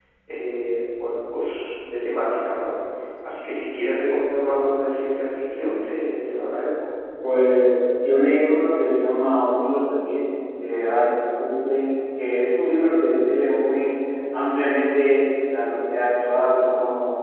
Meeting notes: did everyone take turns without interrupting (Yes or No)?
Yes